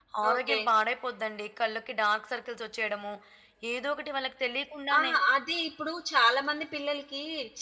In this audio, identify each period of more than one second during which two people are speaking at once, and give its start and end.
none

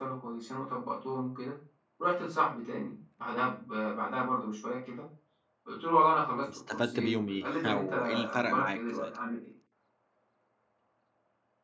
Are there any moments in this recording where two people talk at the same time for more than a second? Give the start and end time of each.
6.7-9.1

